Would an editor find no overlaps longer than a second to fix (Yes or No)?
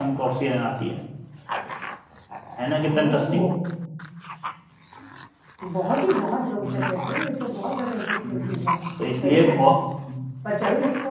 Yes